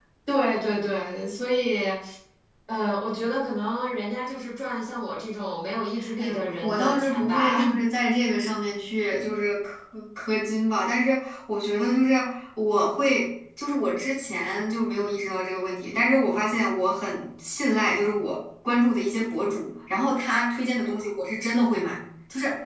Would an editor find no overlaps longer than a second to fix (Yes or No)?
No